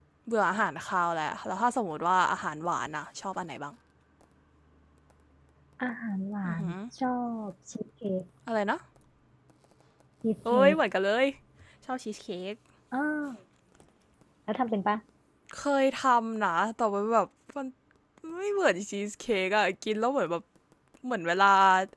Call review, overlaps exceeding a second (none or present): none